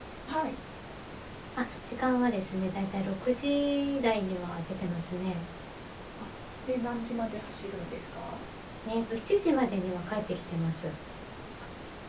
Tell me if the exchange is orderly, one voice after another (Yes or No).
Yes